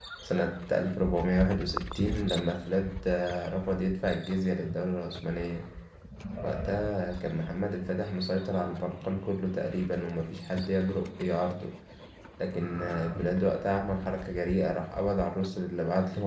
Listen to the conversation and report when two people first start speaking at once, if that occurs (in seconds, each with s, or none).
none